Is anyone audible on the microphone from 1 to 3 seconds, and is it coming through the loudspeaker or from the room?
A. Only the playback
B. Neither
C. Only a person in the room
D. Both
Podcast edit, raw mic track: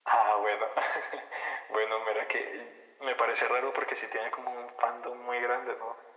A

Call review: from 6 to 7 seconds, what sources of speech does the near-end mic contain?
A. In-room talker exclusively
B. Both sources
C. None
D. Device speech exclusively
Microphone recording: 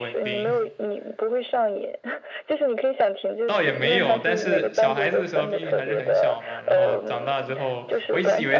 B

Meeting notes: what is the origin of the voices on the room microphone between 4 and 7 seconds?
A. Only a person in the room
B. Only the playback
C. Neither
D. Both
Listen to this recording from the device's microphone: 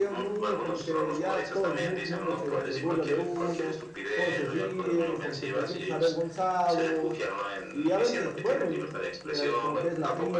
D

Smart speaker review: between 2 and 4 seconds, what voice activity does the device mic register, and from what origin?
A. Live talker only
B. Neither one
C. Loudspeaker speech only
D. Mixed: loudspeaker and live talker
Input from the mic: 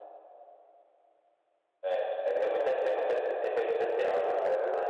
C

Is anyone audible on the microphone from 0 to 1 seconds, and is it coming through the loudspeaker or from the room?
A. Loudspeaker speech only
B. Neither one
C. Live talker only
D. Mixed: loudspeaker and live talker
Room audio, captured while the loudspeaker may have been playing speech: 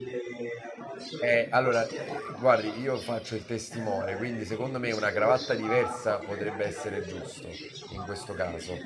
A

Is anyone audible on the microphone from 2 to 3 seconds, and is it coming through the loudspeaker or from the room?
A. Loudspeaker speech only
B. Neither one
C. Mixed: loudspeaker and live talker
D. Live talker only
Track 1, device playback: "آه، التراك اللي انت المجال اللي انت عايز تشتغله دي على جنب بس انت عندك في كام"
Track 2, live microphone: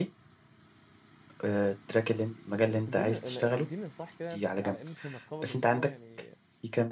C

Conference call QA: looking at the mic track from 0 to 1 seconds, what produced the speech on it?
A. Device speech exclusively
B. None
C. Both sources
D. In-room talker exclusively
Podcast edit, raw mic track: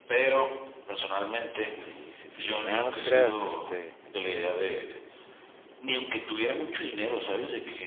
A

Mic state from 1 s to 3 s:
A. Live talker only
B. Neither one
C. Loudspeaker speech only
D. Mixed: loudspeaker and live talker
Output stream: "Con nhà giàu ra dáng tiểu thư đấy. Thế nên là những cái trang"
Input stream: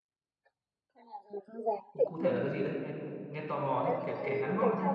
D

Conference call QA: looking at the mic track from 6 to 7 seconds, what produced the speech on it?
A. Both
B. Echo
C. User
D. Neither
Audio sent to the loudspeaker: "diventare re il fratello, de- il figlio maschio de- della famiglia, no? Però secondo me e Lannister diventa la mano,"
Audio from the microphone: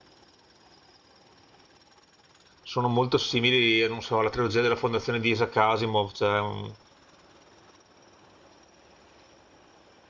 C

